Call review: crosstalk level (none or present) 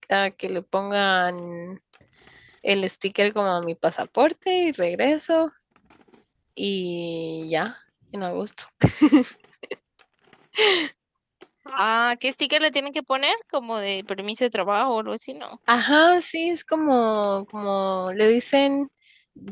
none